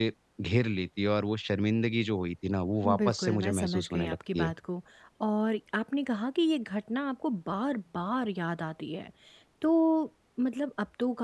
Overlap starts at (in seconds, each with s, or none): 2.8 s